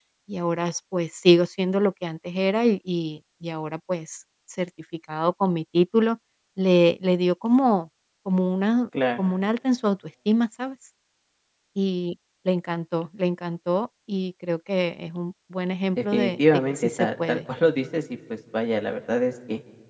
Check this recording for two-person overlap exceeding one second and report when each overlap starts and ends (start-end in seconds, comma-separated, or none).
16.0-17.4